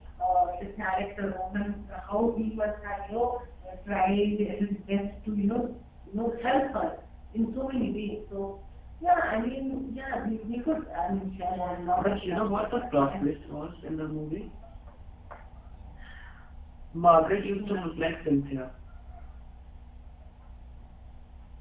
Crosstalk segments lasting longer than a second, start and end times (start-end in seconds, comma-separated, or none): 12.0-13.3